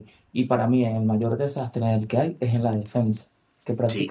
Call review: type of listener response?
listening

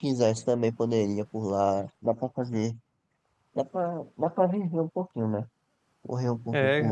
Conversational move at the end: taking over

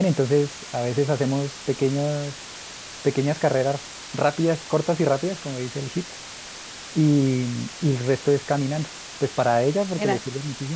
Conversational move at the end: listening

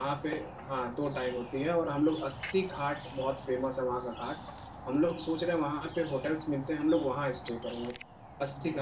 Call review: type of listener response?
listening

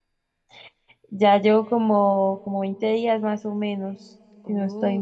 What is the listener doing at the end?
taking over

